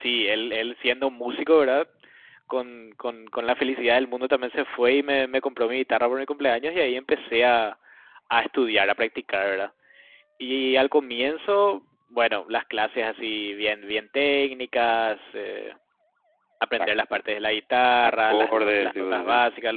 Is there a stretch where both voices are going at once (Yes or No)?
Yes